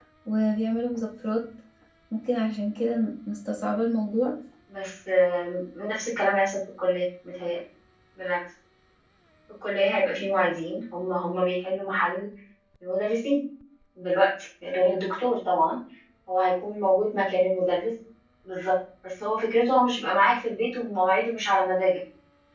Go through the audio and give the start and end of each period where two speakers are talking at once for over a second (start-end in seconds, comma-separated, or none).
none